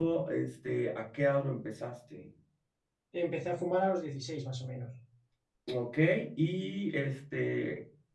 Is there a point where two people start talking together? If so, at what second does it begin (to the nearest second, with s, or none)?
none